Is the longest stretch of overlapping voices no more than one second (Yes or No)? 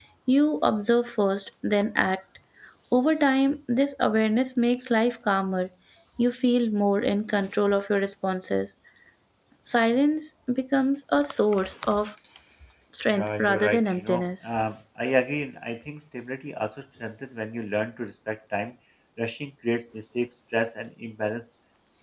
No